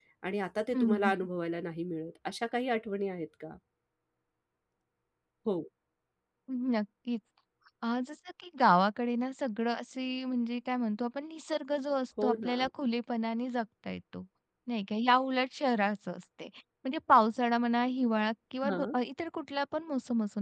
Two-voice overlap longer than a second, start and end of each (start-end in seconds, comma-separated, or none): none